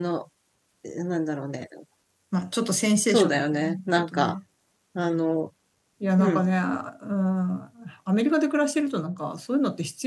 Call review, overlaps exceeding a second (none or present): present